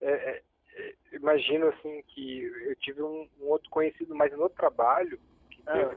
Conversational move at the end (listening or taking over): listening